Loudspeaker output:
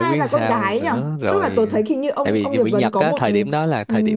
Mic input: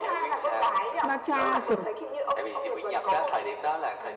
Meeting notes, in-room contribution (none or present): present